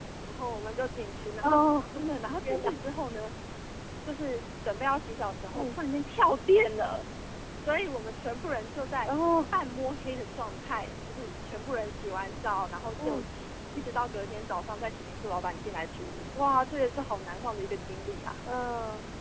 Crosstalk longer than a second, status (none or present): none